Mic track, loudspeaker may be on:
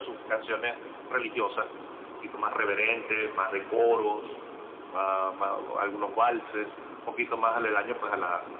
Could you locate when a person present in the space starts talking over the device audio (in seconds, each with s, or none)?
none